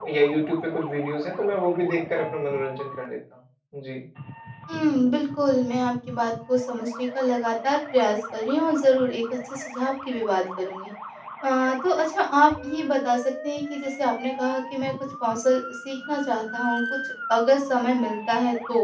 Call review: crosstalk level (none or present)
none